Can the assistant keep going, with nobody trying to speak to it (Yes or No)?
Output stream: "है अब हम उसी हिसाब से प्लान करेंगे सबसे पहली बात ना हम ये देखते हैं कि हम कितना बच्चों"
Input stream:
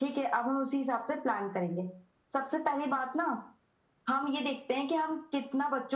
Yes